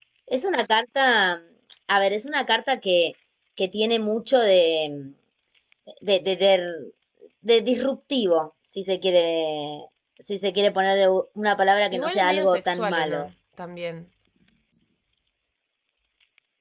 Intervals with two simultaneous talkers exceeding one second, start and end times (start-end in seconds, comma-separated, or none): 11.9-13.3